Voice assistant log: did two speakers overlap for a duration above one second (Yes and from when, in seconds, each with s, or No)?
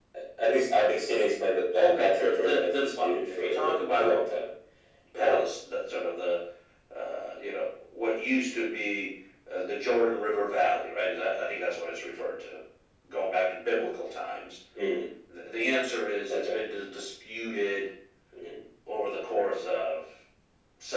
Yes, from 1.8 s